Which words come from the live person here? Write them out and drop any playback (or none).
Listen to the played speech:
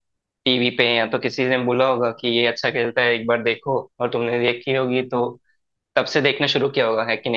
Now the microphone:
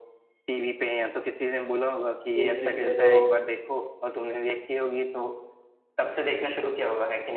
फिर धीरे धीरे तो